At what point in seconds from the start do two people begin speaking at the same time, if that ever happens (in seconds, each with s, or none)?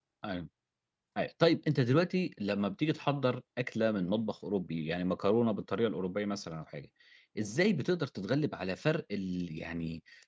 none